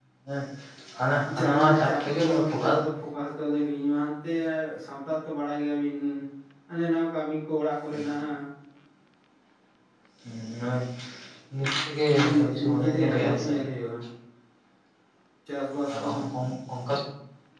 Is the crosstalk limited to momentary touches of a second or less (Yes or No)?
No